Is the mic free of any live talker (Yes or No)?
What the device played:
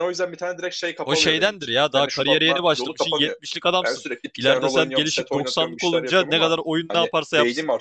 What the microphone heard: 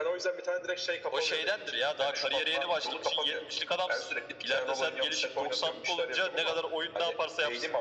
Yes